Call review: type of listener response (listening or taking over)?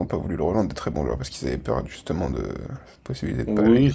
taking over